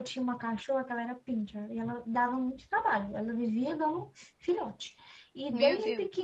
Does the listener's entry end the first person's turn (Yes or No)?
No